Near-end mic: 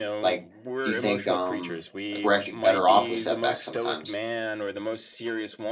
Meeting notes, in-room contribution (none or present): present